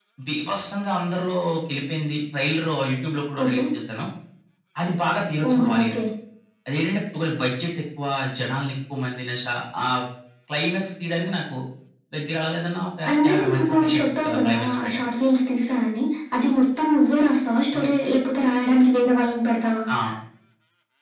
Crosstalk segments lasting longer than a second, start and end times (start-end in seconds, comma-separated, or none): 13.1-15.0